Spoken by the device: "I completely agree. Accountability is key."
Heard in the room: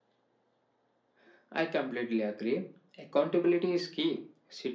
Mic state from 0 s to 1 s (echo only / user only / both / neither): neither